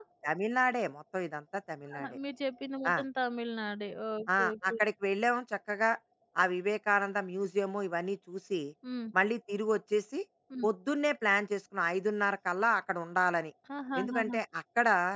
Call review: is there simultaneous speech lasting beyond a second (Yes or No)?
No